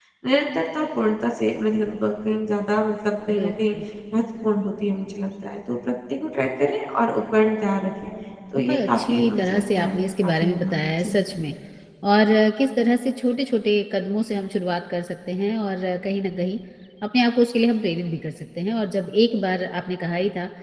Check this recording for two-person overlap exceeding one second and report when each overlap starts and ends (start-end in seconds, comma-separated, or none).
8.7-11.1